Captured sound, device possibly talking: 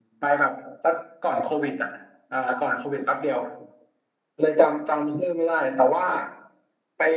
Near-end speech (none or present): none